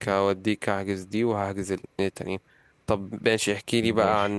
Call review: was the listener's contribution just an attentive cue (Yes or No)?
Yes